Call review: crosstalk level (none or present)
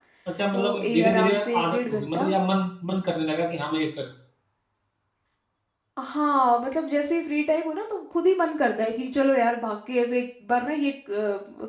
present